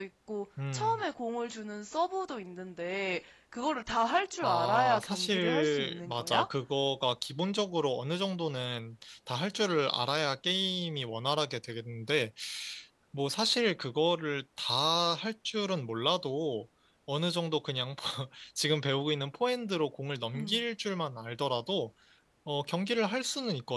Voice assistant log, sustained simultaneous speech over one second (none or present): present